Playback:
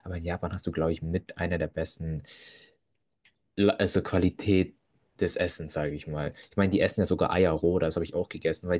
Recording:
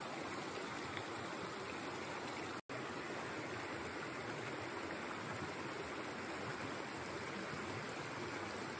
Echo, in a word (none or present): none